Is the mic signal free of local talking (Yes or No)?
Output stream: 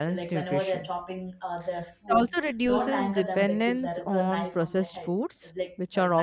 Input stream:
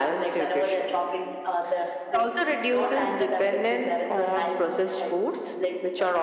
Yes